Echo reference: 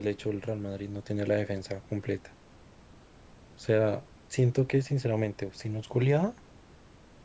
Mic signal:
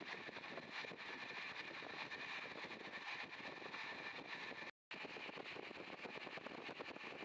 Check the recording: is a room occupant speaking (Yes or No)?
No